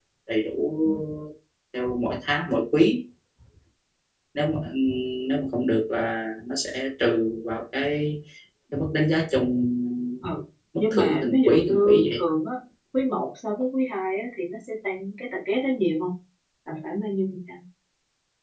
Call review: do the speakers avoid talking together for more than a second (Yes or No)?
No